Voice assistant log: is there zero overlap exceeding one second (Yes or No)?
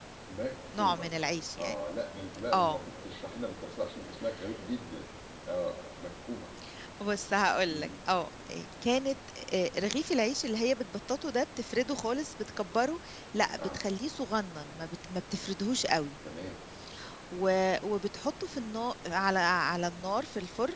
Yes